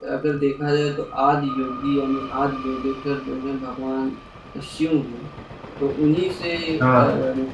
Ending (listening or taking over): listening